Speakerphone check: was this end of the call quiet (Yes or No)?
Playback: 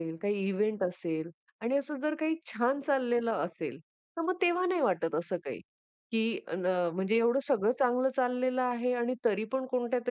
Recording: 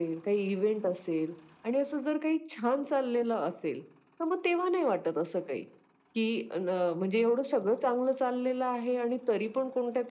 Yes